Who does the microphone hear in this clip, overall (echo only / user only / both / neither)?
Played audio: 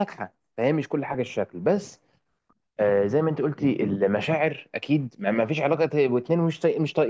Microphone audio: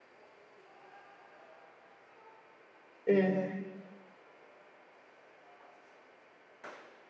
user only